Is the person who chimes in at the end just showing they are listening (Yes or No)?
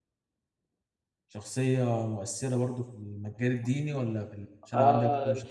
No